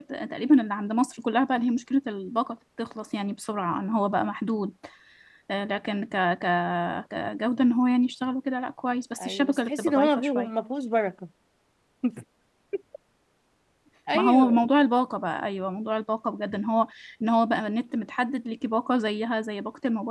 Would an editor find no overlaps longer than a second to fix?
No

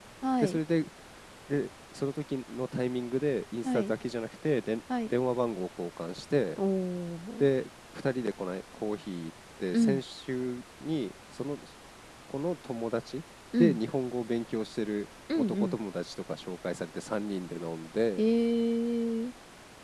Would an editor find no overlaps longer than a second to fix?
Yes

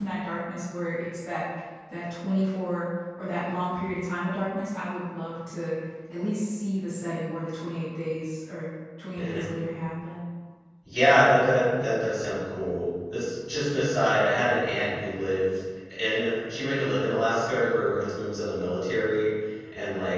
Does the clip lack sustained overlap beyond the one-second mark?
Yes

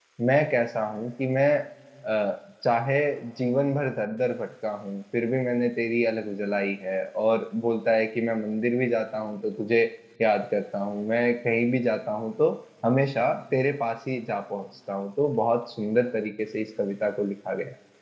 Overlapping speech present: No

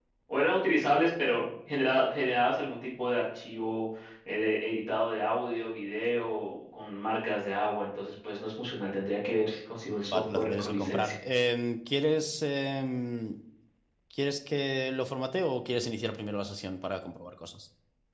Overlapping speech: Yes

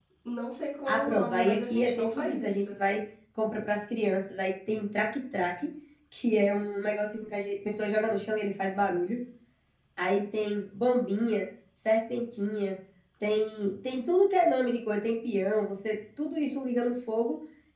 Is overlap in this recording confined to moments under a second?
No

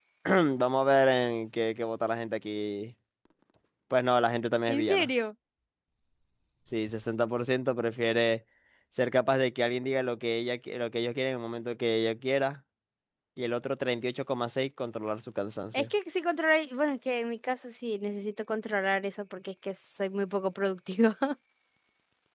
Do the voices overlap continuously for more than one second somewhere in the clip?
No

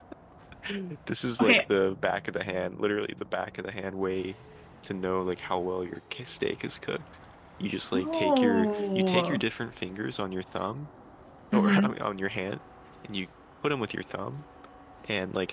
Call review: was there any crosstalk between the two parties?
Yes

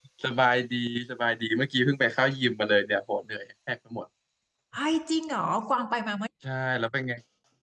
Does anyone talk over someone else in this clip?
No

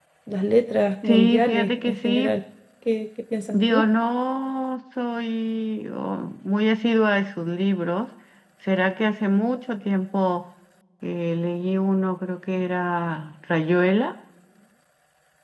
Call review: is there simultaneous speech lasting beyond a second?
Yes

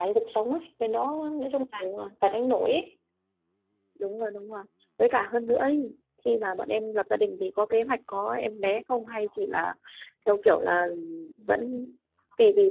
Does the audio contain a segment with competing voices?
No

